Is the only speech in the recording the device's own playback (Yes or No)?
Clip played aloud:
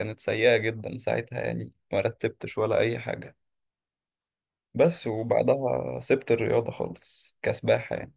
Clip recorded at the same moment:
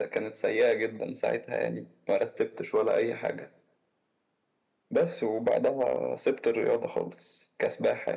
Yes